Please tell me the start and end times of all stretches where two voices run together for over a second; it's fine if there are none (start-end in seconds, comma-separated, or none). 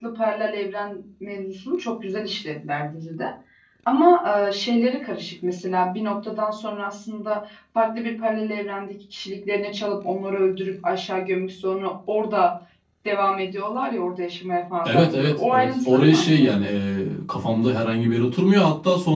14.8-16.6